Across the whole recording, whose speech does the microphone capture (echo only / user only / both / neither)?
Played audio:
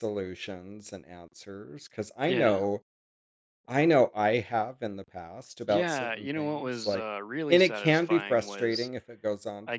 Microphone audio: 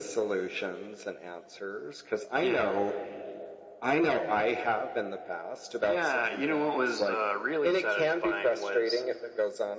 echo only